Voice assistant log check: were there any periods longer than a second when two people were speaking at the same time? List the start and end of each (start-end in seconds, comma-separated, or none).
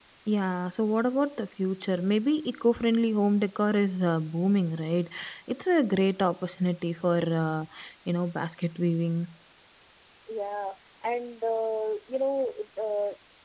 none